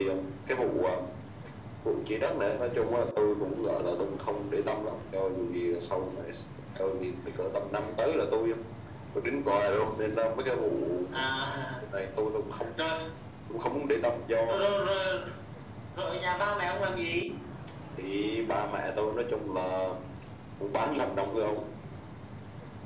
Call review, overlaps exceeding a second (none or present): none